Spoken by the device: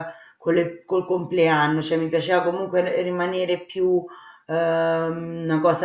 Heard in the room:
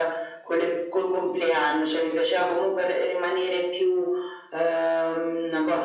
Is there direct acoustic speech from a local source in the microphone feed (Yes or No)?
No